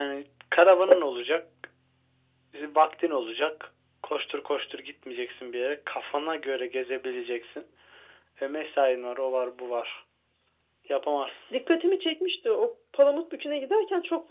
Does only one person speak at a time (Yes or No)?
Yes